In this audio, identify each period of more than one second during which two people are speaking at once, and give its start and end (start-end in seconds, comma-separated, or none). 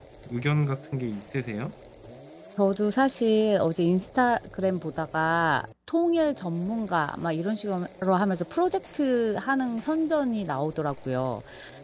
none